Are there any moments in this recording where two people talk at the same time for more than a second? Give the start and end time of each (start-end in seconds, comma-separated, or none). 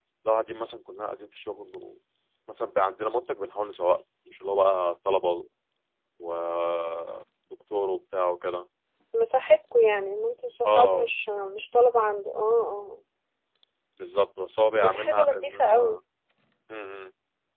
14.7-16.0